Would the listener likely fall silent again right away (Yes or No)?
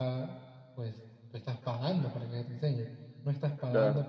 Yes